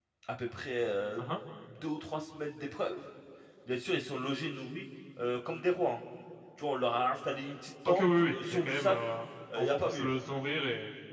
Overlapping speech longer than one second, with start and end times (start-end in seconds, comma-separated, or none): 7.8-9.1